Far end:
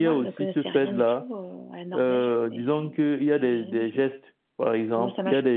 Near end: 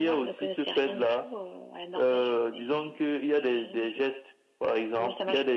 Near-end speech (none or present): none